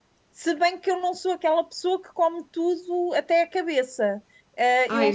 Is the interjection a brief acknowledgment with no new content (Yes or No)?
Yes